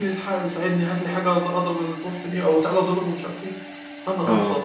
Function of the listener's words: listening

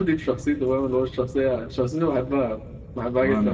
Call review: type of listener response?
listening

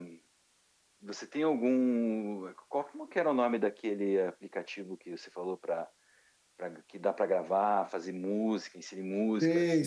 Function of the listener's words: taking over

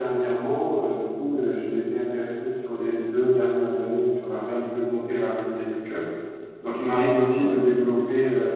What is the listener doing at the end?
listening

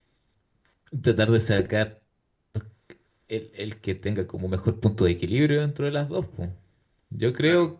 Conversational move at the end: taking over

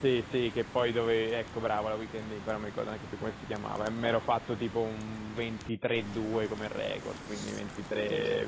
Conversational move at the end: listening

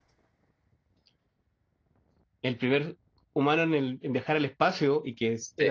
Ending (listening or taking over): listening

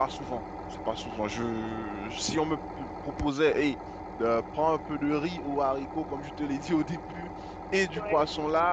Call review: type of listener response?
listening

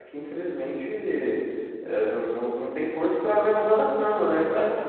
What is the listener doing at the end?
listening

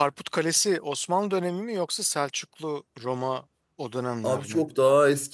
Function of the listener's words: taking over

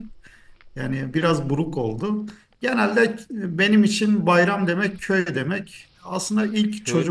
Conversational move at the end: listening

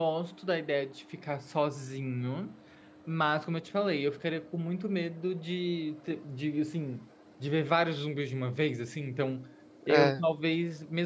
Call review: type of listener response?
listening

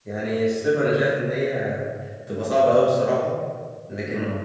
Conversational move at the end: listening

